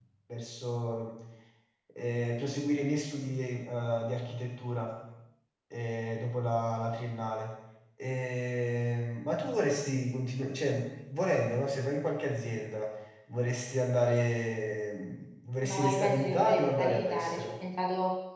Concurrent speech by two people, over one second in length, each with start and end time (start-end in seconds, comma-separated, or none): 15.6-17.5